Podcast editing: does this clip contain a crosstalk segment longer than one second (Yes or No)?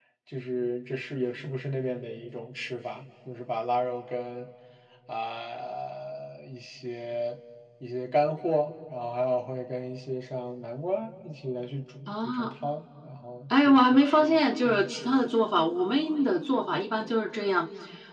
Yes